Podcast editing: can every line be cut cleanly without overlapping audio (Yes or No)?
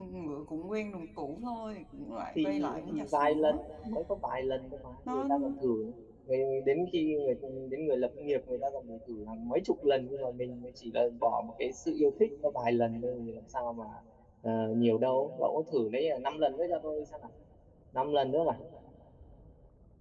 No